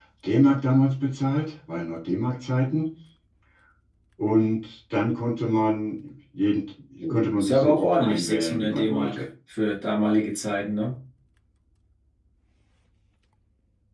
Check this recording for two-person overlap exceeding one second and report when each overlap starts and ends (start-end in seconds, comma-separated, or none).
7.1-9.2